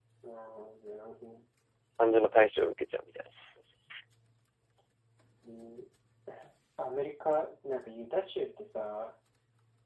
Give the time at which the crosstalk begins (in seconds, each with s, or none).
none